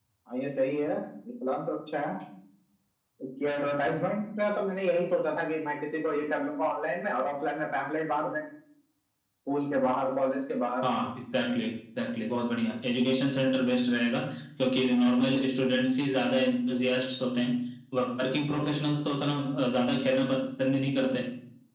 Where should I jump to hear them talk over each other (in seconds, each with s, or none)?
none